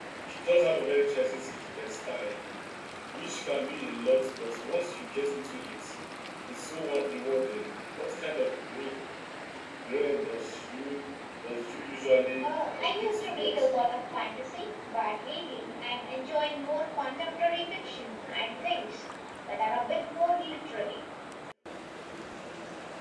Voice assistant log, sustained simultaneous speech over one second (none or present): present